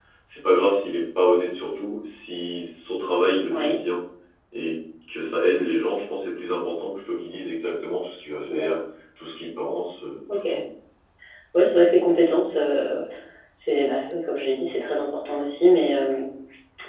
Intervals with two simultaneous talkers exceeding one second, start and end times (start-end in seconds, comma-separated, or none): none